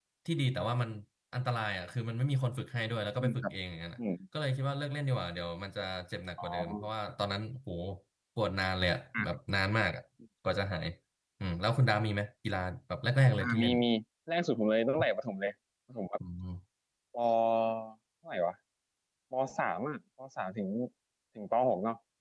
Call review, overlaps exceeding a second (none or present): none